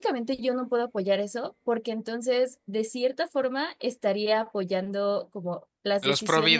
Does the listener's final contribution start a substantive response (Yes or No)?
No